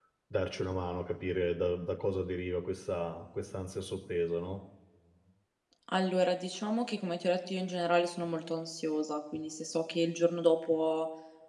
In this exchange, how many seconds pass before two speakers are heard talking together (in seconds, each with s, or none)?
none